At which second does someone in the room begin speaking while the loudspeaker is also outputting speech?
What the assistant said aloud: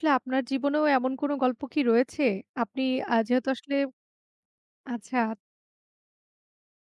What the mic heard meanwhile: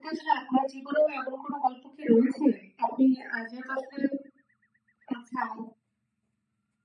none

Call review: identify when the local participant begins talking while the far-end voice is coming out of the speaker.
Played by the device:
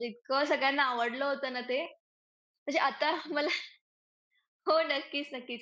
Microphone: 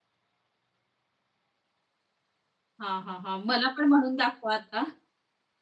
2.8 s

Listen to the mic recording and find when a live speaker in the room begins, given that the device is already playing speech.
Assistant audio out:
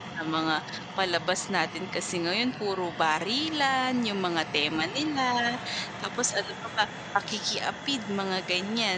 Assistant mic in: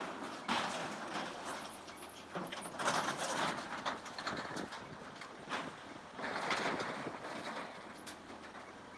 none

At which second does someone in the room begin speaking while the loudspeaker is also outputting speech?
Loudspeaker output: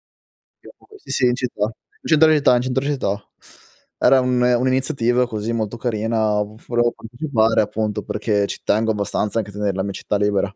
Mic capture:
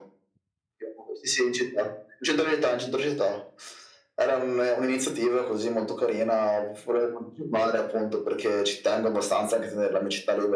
none

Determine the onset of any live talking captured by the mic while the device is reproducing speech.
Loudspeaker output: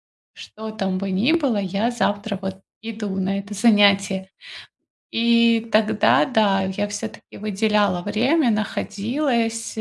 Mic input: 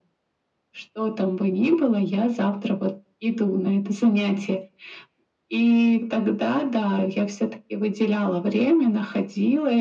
none

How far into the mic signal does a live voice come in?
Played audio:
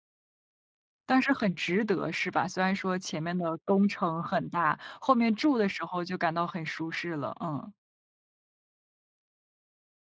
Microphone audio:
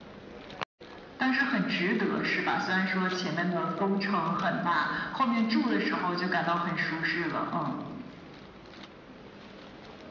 none

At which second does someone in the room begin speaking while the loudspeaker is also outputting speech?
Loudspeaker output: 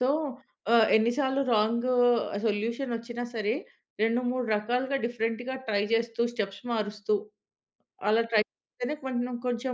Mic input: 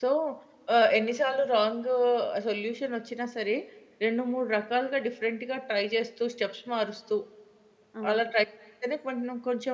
8.0 s

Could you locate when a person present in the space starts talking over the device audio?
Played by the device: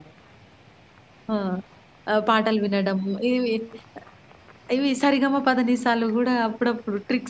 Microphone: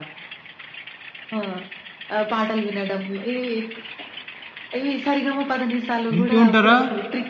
6.2 s

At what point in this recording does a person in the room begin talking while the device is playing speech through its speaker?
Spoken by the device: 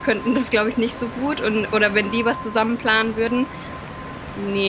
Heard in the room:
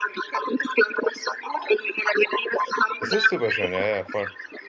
3.0 s

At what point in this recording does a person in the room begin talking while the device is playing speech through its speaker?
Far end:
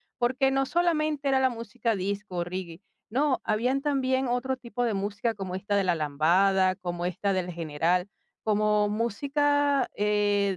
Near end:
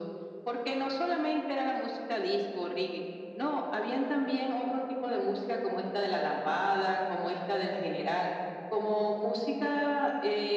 none

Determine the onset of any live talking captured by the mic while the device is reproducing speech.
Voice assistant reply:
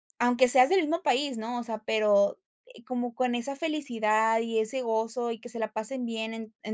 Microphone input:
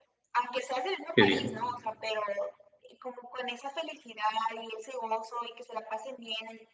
1.1 s

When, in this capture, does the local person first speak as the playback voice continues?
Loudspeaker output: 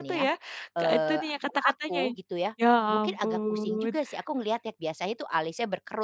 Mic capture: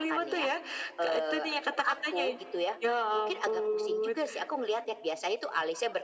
none

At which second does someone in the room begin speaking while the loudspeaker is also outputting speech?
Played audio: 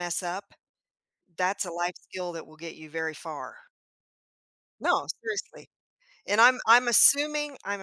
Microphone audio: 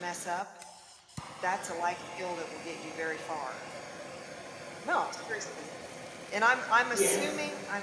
6.9 s

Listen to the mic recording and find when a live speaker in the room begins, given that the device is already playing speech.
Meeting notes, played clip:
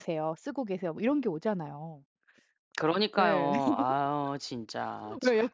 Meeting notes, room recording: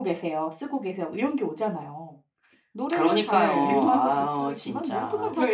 2.7 s

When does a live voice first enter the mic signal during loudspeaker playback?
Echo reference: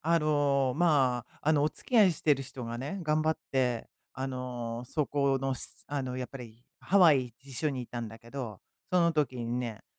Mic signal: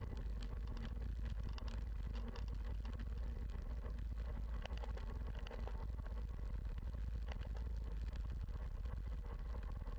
none

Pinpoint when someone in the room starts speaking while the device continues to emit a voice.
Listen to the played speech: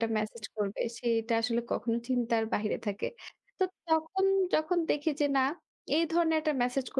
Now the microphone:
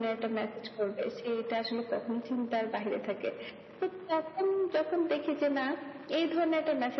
none

